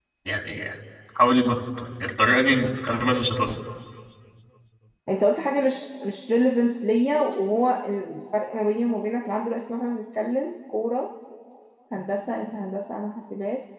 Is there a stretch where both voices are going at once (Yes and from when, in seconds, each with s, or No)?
No